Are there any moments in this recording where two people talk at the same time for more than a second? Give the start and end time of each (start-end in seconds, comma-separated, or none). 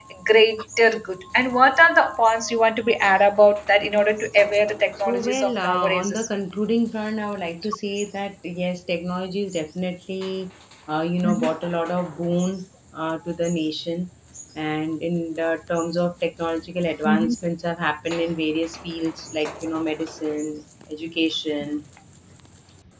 5.0-6.3